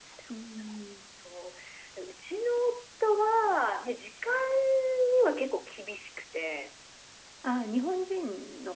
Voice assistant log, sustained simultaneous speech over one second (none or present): none